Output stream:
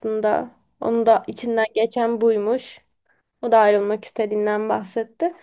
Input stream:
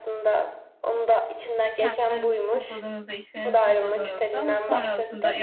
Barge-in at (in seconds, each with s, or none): 1.7 s